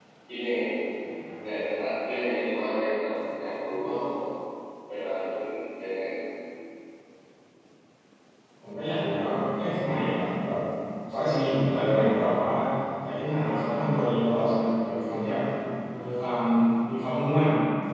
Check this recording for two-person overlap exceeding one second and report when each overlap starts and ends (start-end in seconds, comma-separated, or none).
none